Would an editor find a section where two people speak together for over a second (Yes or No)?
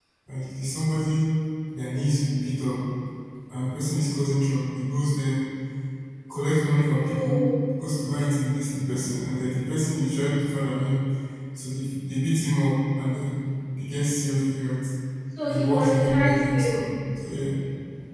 Yes